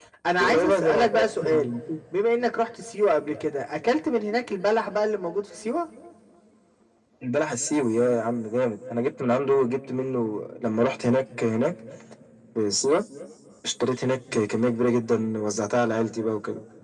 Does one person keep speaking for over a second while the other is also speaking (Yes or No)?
Yes